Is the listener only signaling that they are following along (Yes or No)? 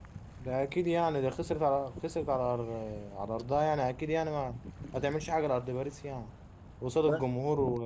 Yes